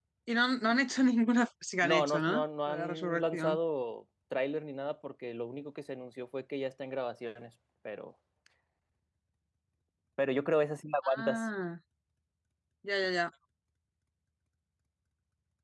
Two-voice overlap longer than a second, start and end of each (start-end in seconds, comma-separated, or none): 1.8-3.6